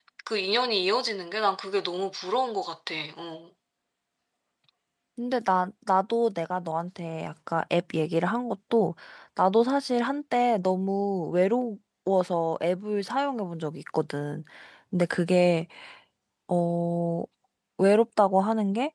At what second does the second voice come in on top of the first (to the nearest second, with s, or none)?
none